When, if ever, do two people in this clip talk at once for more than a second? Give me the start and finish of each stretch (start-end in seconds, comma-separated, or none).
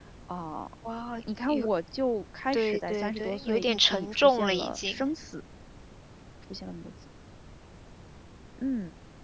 2.5-5.0